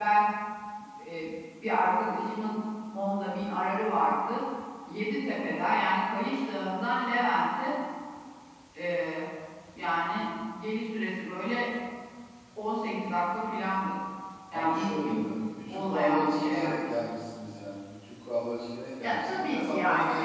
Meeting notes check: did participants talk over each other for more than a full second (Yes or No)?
Yes